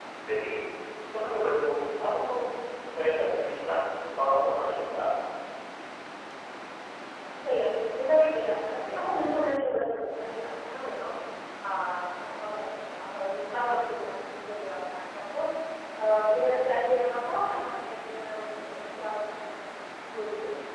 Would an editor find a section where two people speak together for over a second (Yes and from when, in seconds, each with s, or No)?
No